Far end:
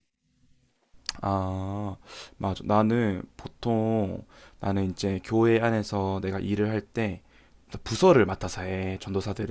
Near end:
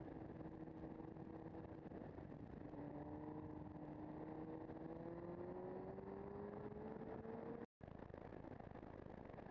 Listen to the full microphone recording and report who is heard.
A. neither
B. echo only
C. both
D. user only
A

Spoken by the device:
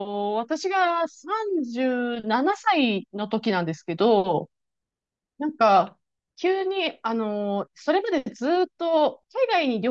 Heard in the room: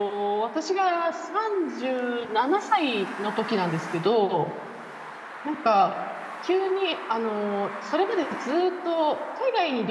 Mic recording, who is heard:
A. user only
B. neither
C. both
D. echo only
D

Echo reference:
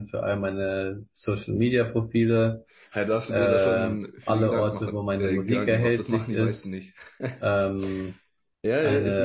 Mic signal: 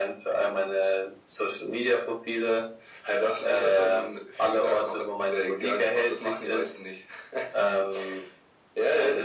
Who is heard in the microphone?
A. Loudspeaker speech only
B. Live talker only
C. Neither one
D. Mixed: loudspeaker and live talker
A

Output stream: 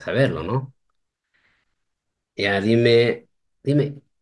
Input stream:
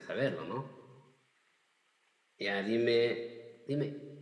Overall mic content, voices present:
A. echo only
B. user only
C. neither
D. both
A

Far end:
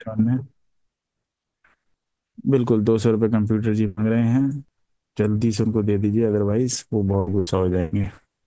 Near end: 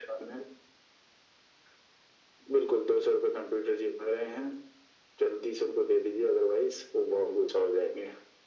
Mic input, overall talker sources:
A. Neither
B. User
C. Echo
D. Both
C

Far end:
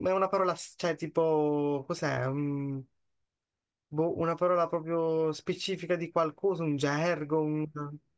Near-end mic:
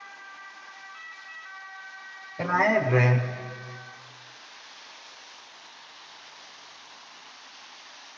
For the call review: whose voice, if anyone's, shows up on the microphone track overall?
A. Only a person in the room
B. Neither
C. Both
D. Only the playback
A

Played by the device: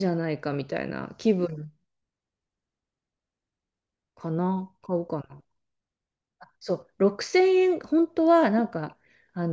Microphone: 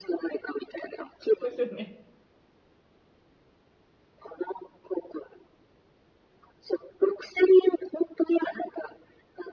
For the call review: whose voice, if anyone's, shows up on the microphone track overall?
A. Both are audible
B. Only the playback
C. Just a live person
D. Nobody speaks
A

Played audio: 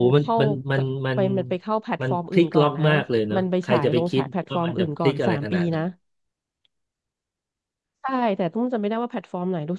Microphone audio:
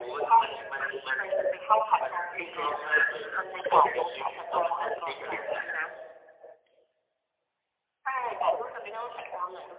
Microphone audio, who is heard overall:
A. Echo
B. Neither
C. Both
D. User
A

